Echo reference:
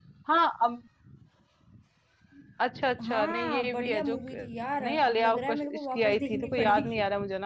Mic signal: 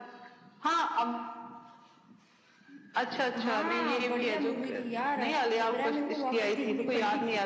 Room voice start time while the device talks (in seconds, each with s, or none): none